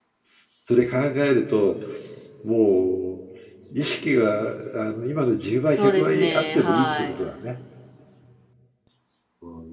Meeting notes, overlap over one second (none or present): present